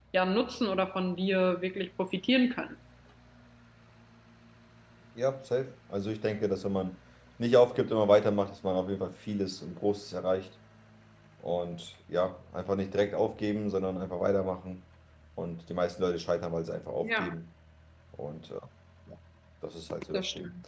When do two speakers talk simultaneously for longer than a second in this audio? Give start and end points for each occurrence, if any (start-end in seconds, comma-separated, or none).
none